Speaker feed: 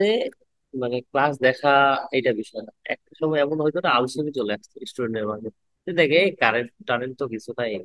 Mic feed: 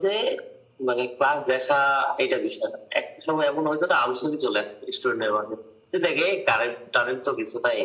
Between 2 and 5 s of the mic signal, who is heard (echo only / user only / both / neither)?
echo only